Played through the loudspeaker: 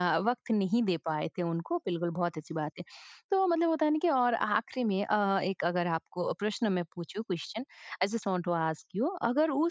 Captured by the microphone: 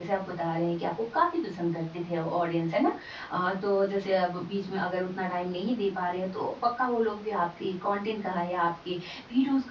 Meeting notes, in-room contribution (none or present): present